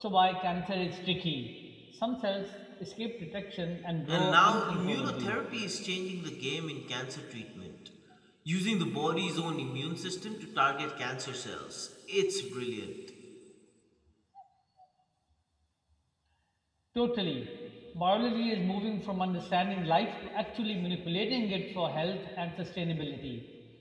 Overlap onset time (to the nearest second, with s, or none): 4 s